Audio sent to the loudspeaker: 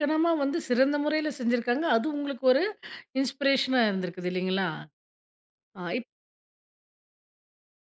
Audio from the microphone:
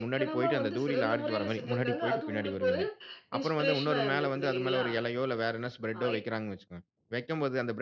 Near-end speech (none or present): present